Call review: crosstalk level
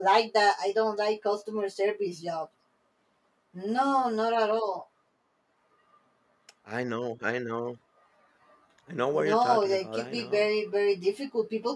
present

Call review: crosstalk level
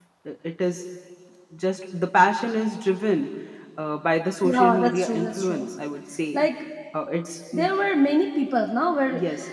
present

